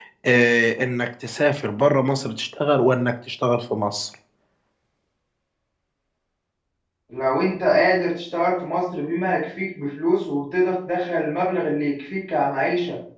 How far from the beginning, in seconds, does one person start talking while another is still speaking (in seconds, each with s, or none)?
none